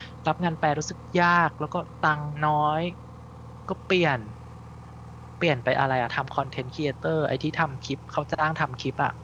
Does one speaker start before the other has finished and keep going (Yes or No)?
No